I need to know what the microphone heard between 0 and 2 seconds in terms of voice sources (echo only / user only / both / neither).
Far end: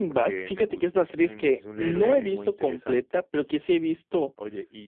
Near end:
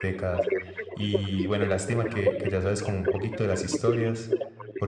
both